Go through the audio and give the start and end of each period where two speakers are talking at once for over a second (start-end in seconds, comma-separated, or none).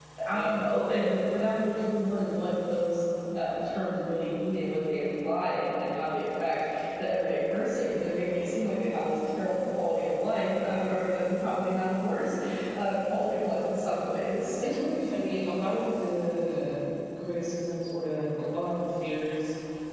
none